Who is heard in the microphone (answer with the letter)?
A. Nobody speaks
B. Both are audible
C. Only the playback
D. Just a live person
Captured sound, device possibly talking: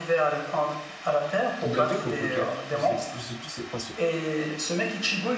B